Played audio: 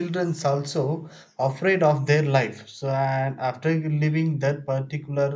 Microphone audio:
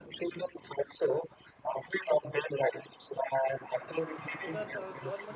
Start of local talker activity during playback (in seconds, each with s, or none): 4.4 s